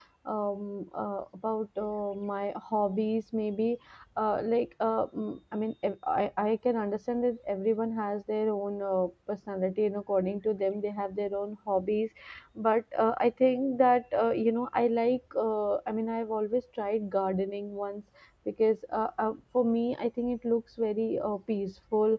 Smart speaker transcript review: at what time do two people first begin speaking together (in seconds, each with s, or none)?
none